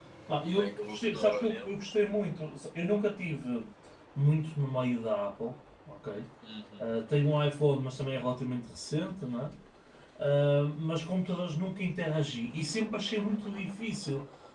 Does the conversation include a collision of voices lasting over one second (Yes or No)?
Yes